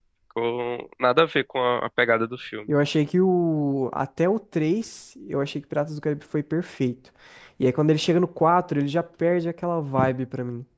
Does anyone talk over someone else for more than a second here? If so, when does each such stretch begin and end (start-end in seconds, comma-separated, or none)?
none